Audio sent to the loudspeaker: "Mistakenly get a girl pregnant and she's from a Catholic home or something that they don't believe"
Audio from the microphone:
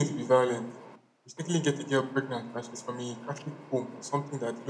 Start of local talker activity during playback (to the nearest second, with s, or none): none